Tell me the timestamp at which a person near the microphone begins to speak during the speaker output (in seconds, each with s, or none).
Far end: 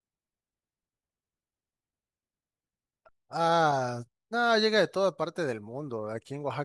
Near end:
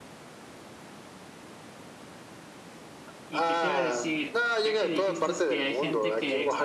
3.3 s